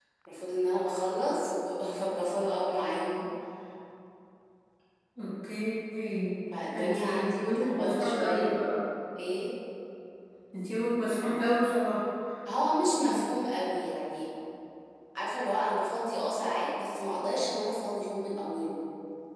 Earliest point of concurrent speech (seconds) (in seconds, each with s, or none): 6.7 s